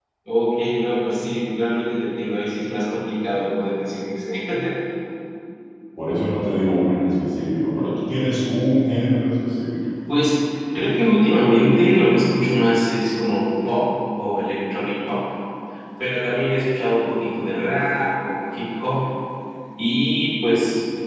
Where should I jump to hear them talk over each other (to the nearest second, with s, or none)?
none